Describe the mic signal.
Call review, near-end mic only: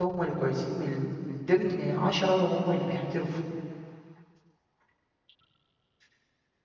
user only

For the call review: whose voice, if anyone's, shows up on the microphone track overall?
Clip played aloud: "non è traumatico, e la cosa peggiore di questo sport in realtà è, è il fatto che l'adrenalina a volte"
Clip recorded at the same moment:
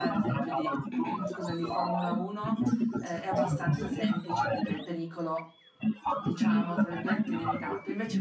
both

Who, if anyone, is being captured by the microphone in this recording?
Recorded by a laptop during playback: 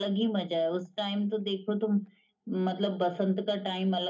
echo only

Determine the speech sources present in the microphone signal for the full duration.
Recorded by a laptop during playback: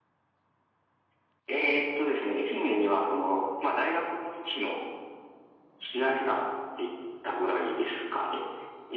echo only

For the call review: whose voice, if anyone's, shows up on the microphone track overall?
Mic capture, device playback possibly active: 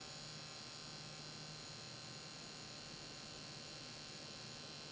neither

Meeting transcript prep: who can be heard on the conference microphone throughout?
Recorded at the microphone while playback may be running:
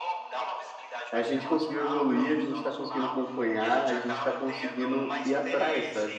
both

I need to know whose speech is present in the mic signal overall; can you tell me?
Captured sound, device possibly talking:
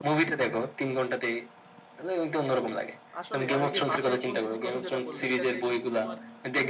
both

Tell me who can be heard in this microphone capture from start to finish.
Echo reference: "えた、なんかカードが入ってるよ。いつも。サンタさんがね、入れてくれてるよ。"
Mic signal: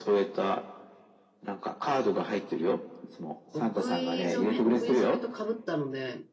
both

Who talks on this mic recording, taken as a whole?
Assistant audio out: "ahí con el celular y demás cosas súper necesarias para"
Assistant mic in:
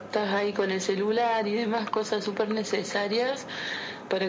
echo only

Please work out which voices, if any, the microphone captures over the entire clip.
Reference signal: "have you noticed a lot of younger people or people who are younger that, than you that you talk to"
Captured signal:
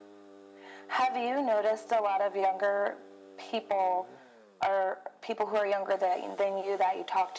echo only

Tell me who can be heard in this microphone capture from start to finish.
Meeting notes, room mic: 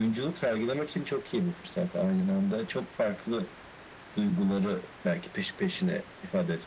echo only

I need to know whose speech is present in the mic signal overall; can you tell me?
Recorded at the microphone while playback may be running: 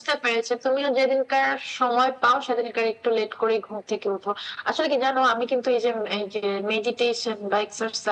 echo only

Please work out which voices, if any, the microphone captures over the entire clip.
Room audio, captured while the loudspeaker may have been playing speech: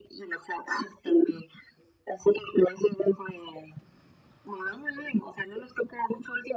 echo only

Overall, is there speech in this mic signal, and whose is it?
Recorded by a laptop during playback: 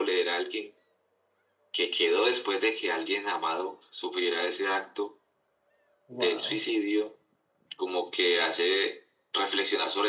both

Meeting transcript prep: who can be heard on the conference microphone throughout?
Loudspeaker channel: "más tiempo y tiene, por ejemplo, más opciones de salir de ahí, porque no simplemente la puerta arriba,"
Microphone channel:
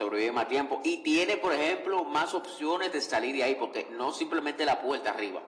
echo only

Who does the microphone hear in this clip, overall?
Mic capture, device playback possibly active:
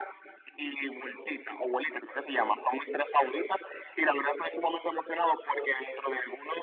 echo only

